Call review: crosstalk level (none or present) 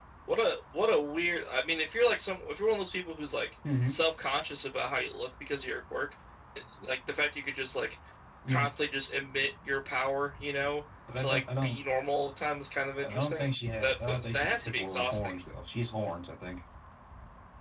present